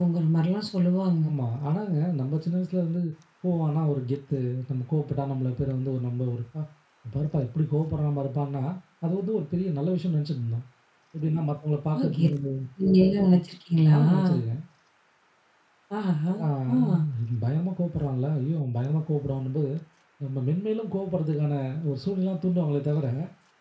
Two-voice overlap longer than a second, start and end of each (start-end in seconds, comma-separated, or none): none